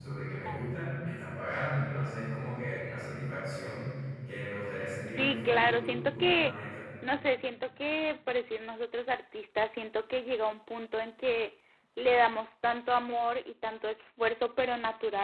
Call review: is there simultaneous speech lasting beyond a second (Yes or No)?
Yes